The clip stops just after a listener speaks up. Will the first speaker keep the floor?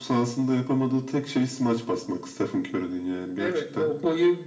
No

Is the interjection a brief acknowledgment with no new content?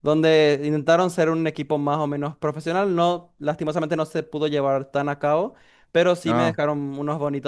Yes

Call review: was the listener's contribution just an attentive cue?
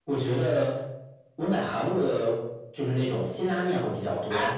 Yes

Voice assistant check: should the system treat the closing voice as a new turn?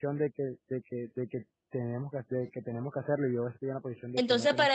Yes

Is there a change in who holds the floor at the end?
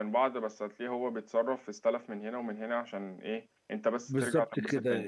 Yes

